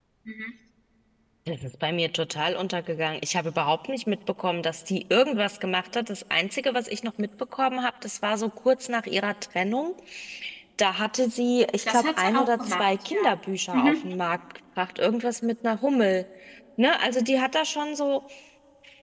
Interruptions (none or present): present